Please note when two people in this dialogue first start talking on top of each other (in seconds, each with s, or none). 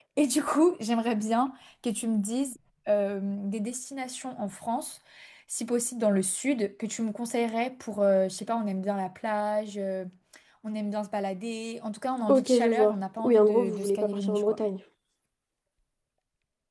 12.3 s